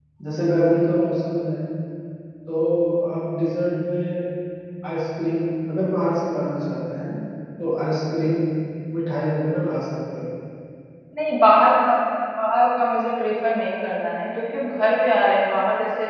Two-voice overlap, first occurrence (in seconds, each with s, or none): none